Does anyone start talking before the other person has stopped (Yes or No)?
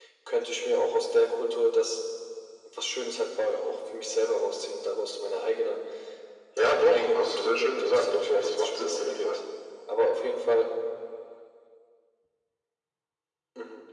Yes